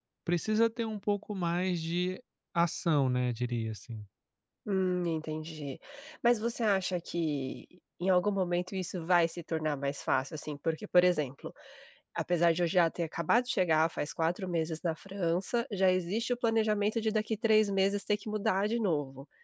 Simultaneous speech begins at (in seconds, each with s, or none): none